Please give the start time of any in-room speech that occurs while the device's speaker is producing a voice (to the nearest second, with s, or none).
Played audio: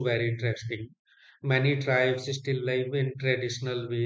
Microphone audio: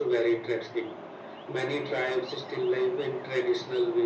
none